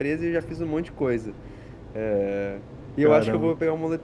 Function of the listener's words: listening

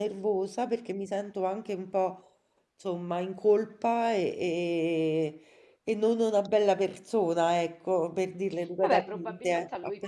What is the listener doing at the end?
taking over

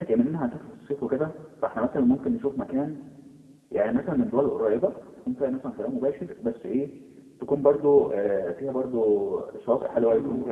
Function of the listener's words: listening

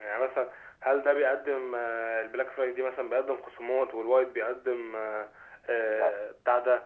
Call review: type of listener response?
listening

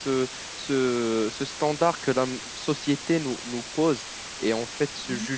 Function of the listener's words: listening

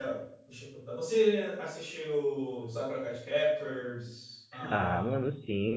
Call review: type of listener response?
taking over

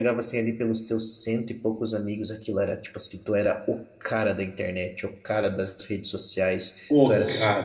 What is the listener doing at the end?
listening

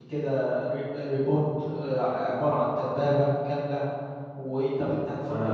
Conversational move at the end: taking over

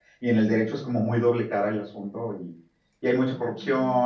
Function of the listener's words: listening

